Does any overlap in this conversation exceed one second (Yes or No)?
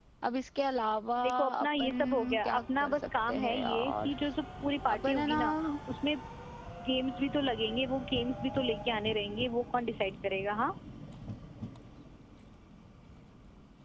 Yes